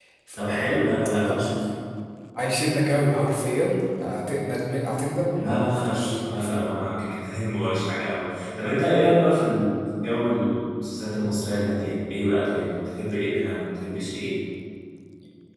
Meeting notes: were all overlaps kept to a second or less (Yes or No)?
No